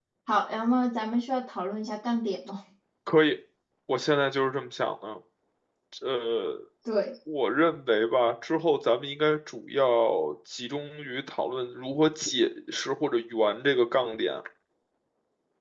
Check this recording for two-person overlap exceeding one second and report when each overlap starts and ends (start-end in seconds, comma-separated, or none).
none